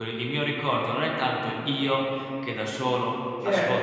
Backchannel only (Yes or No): Yes